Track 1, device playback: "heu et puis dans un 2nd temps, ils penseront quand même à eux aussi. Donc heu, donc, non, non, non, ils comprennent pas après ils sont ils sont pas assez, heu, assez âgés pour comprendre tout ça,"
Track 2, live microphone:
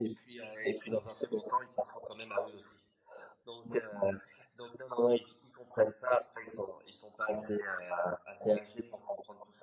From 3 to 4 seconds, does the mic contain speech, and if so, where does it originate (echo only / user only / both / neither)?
echo only